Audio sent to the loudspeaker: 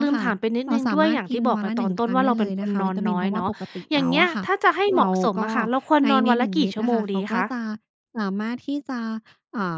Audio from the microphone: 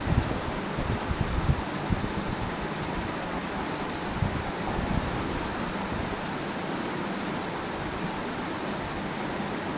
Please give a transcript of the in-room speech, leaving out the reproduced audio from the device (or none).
none